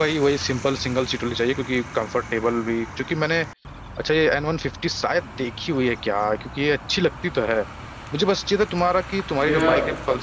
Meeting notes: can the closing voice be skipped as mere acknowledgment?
Yes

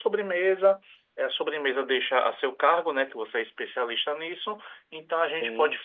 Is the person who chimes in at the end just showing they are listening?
Yes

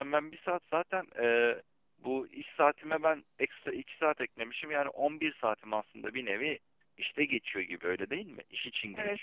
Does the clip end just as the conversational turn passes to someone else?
Yes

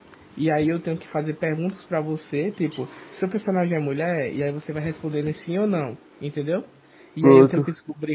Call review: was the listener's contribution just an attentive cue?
Yes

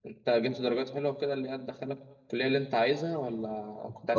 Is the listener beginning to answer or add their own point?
Yes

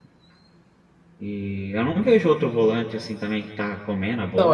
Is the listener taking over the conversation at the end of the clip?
Yes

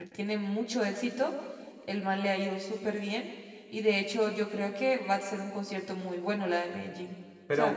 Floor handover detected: Yes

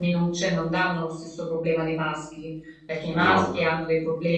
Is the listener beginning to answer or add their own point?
No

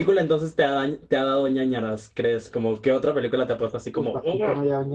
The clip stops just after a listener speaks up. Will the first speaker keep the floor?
No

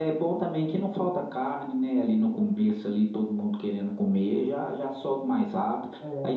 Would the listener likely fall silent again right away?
Yes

